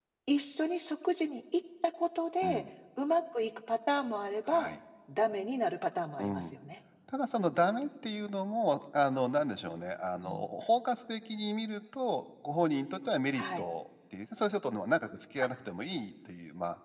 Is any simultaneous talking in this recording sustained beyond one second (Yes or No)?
No